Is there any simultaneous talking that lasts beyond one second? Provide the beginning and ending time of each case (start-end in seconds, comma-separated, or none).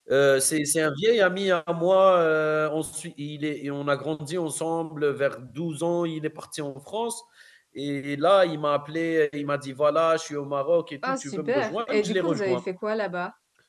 11.1-12.6